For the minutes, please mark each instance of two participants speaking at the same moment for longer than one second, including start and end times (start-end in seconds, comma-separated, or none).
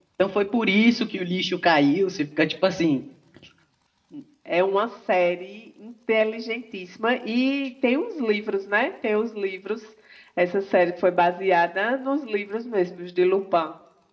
none